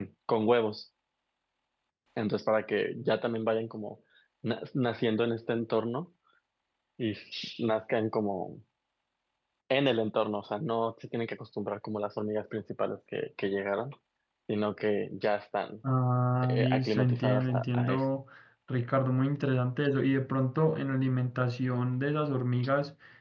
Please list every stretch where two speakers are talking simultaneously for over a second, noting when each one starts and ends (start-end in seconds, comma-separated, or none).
16.4-18.0